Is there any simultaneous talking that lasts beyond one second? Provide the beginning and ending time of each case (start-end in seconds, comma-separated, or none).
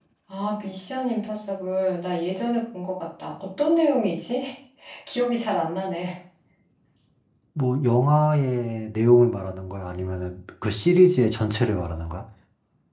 none